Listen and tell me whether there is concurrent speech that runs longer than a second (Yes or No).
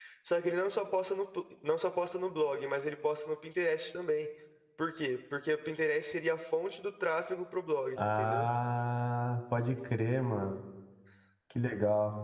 No